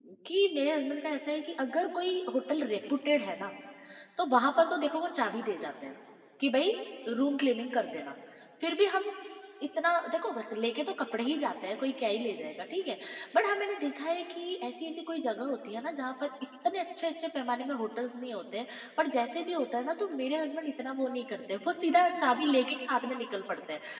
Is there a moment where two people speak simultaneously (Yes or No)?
No